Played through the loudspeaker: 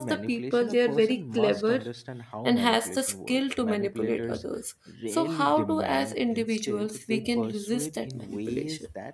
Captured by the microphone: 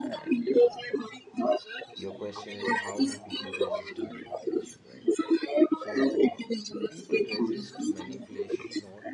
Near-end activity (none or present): present